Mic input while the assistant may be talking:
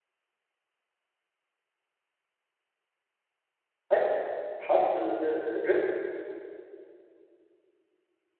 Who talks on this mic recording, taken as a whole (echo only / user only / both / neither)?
user only